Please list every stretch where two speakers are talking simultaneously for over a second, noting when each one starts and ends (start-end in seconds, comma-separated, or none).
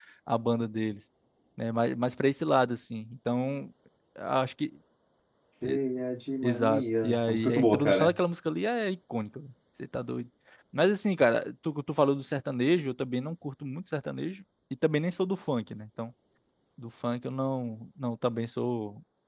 6.4-8.1